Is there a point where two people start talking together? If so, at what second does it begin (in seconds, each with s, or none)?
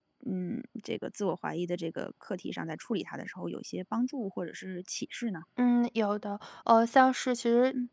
none